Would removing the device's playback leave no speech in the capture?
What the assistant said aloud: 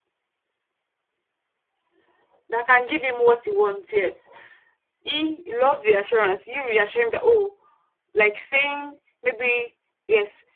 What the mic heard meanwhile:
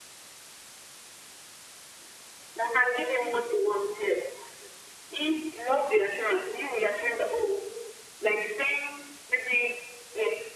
Yes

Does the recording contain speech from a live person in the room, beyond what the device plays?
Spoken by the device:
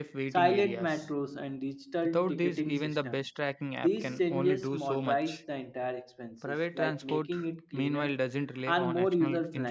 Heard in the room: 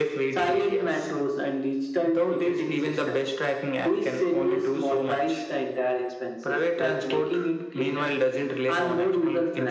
No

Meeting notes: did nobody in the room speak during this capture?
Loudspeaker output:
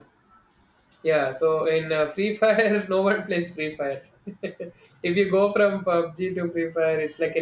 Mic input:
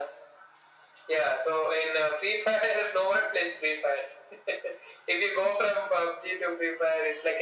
Yes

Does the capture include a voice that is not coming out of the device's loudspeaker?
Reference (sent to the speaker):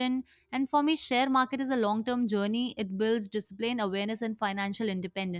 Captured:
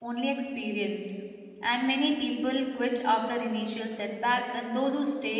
Yes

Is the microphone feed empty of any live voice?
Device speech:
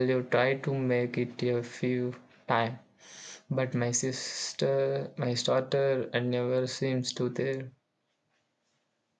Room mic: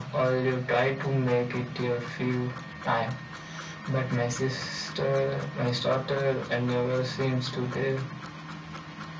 Yes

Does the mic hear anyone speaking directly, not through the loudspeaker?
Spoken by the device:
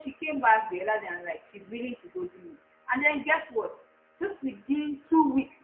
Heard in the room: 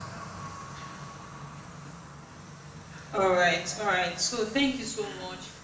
Yes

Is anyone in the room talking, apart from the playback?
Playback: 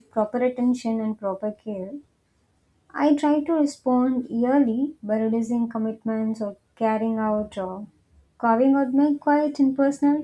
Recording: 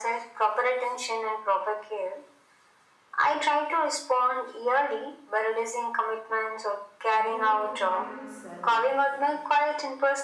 Yes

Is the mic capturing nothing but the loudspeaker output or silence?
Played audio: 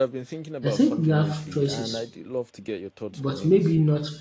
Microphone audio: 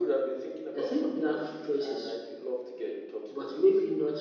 Yes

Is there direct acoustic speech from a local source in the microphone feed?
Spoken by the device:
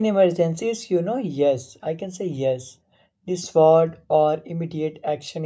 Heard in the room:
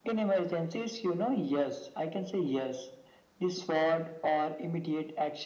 No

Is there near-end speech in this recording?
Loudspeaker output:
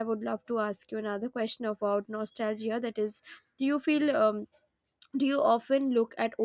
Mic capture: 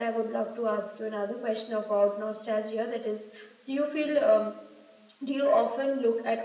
No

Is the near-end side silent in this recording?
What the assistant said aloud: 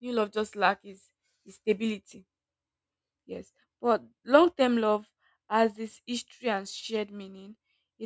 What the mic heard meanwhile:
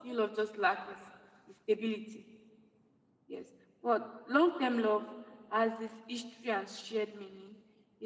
Yes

